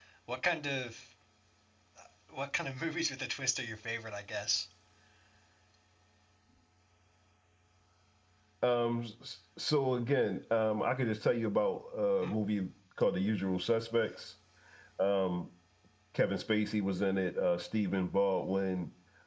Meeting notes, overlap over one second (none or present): none